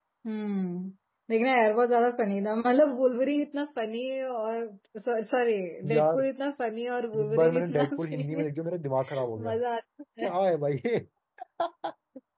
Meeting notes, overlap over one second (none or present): present